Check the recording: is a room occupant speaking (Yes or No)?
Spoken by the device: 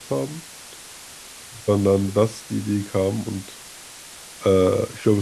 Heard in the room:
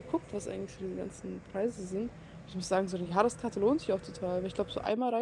Yes